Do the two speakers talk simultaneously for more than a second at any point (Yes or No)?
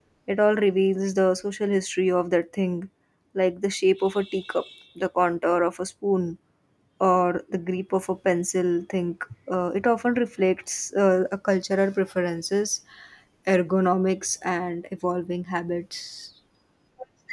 No